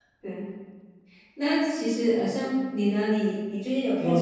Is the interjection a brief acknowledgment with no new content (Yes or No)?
No